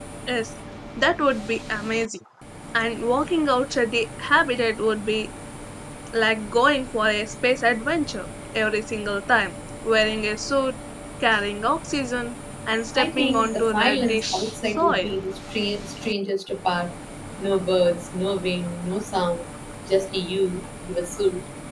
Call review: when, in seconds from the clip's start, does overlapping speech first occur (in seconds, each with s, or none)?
12.9 s